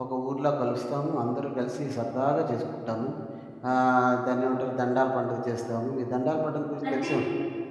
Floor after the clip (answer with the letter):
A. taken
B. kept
B